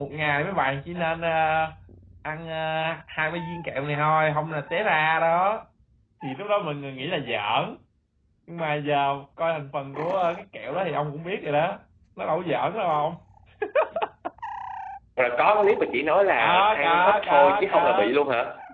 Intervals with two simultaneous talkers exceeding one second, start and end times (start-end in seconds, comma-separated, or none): 16.4-18.1